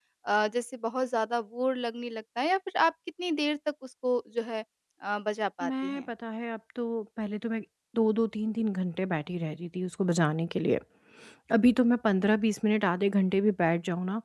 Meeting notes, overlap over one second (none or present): none